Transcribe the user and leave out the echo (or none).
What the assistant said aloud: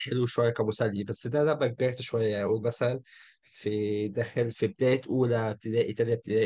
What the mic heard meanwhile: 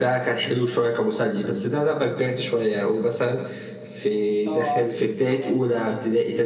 اه عارف تخين قوي